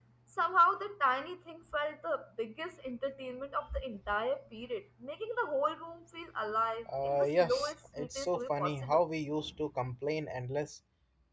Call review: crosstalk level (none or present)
present